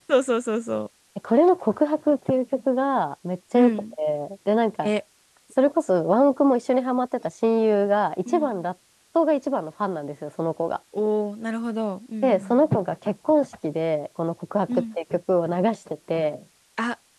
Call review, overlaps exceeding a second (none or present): none